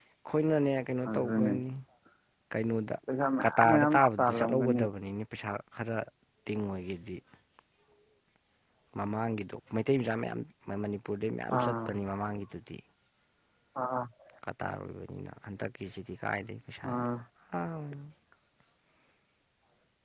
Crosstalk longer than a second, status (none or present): present